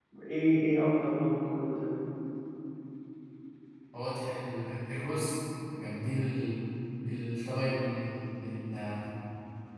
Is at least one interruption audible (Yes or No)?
No